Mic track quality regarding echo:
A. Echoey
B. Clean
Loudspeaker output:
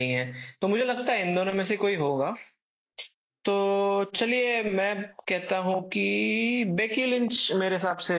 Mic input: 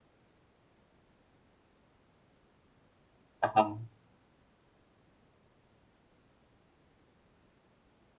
B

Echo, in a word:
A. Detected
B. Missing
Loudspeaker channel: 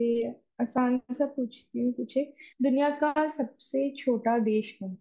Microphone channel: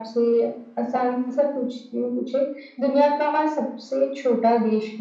A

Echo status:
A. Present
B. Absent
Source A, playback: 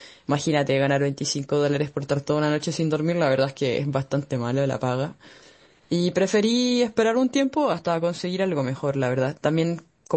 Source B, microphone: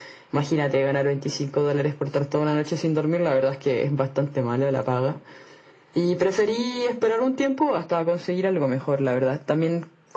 A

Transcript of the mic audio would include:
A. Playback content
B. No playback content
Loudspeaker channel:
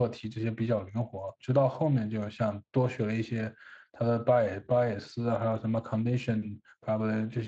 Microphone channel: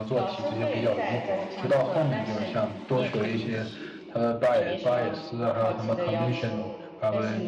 A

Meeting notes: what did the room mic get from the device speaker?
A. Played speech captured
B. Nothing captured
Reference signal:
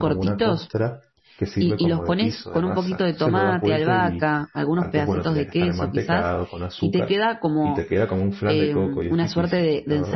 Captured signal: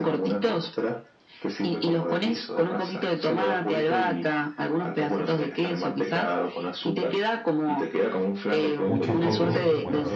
A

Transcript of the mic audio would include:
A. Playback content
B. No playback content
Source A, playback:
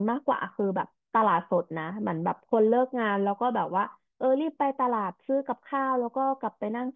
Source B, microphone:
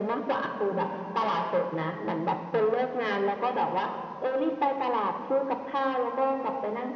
A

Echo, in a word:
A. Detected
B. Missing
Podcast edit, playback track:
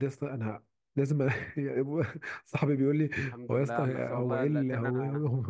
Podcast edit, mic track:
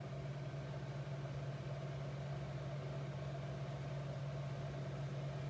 B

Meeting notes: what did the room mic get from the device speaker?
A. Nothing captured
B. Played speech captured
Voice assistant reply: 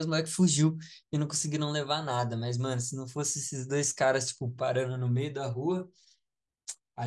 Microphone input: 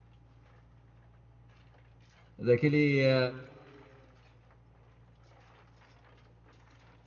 A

